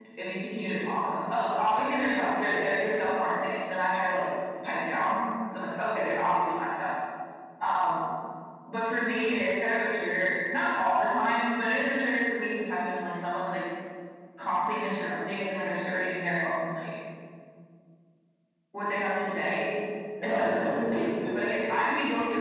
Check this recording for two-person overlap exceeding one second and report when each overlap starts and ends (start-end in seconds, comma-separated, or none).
20.2-21.5